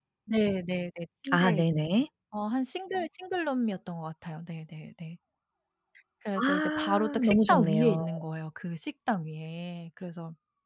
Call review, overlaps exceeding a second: present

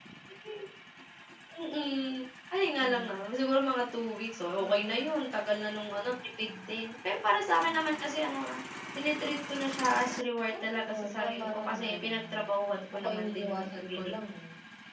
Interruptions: present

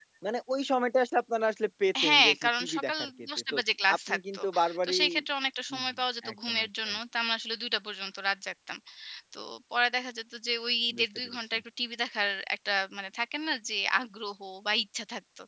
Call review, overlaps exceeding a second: present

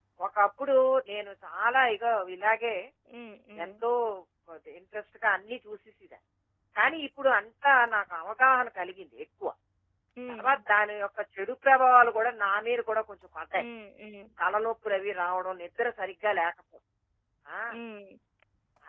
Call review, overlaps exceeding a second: none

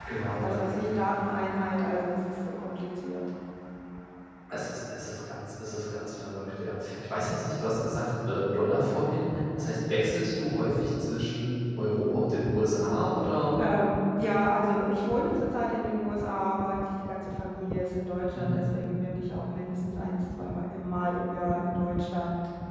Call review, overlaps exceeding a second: none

